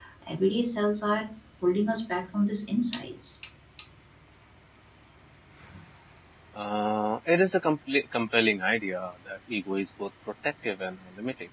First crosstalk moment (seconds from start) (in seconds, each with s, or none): none